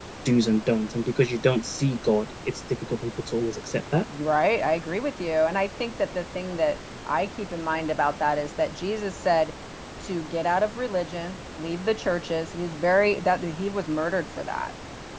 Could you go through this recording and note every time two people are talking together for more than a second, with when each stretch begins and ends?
none

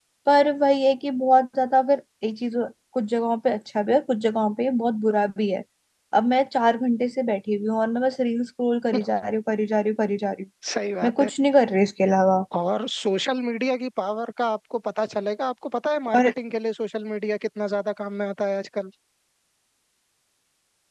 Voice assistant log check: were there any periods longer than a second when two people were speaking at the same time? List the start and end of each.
none

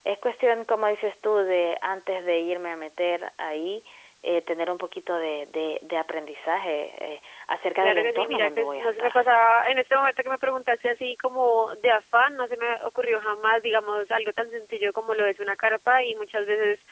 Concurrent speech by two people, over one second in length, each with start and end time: 7.8-9.1

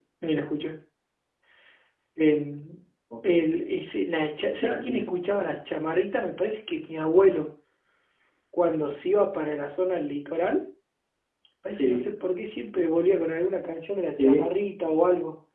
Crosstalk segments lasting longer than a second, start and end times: none

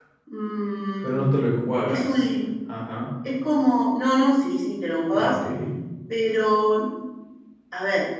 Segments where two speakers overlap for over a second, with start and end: none

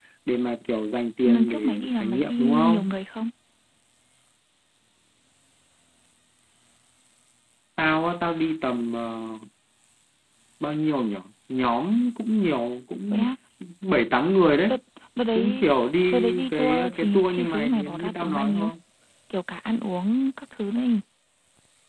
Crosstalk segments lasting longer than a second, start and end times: 1.2-2.9, 16.1-18.7

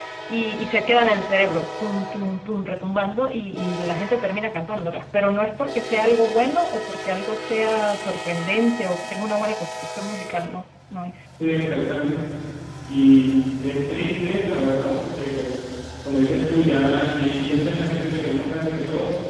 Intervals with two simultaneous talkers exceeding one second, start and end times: none

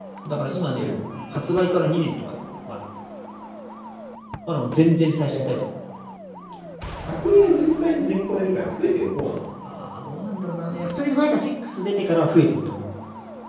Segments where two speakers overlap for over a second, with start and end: none

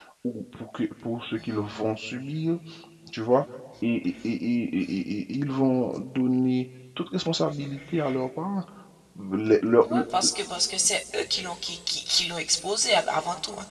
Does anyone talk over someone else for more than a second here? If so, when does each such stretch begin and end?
none

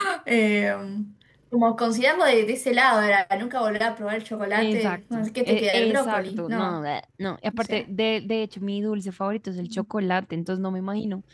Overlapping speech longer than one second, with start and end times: 4.6-6.8

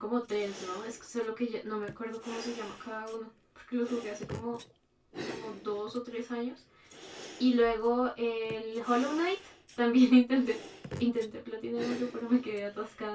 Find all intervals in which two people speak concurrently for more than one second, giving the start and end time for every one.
none

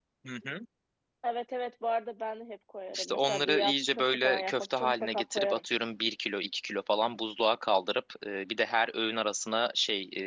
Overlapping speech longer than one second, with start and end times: 2.9-5.6

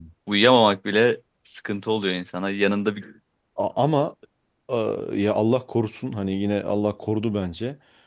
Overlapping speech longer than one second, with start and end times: none

